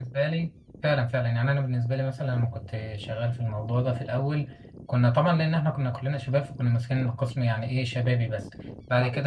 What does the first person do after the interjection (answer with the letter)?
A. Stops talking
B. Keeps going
B